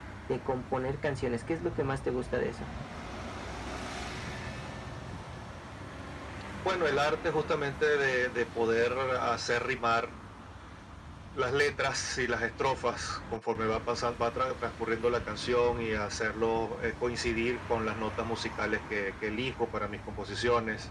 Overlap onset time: none

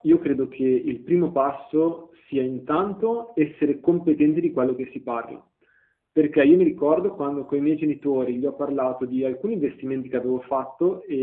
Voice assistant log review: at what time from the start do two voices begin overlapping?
none

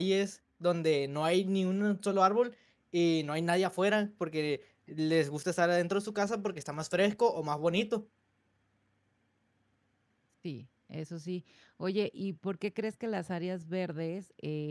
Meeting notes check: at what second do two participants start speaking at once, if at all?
none

